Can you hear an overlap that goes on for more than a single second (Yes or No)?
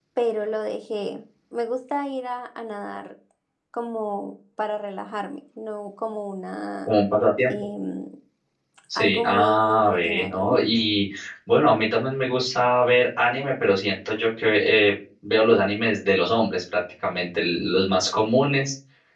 Yes